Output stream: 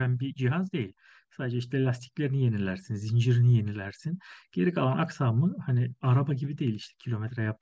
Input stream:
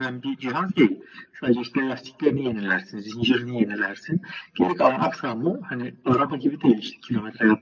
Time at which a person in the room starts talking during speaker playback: none

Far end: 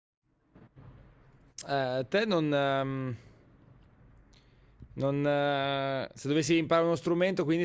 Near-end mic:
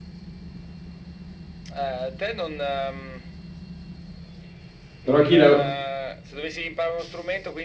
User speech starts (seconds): 5 s

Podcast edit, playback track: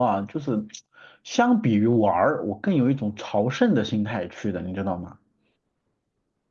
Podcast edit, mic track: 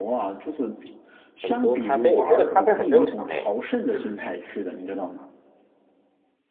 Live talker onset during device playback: 1 s

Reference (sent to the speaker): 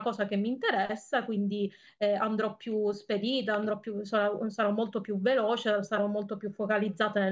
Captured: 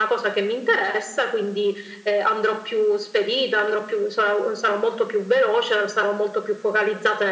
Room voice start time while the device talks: none

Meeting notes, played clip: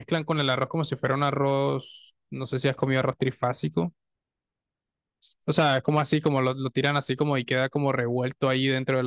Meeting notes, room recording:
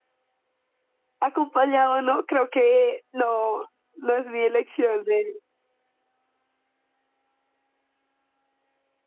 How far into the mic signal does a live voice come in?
1 s

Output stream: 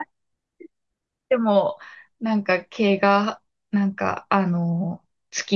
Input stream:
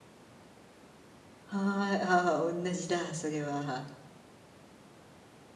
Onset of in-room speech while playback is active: 2 s

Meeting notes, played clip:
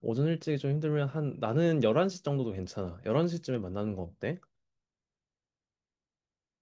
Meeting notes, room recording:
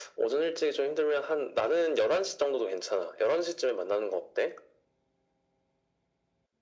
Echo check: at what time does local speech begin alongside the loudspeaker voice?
none

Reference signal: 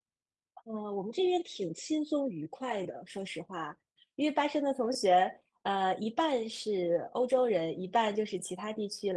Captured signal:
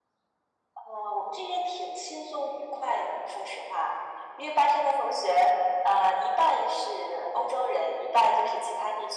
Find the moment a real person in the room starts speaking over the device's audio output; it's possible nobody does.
none

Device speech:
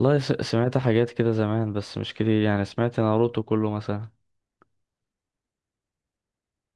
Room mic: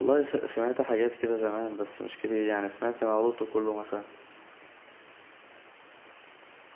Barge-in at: none

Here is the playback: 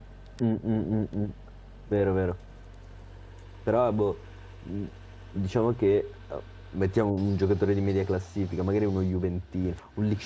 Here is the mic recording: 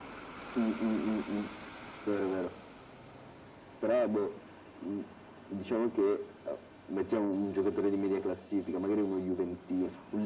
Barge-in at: none

